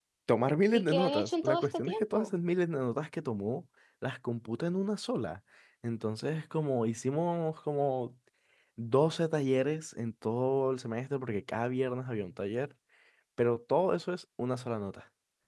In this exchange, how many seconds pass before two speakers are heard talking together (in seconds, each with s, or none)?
0.7 s